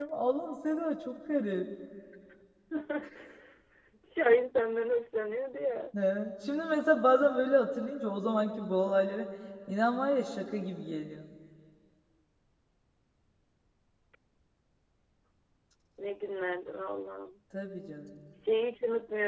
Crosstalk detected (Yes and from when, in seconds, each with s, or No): No